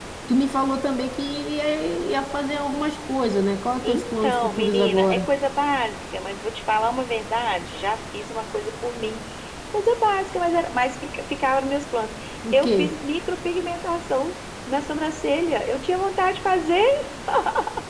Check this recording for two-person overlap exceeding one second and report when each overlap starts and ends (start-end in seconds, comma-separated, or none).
3.9-5.3